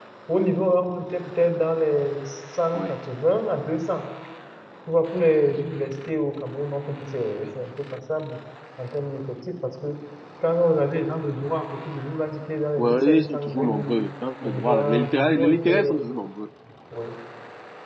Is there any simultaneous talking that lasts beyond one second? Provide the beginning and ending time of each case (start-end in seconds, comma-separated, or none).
12.8-14.0, 14.4-15.9